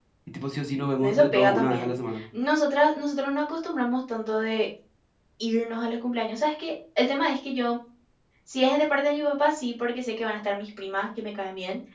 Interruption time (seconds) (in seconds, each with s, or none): 1.0 s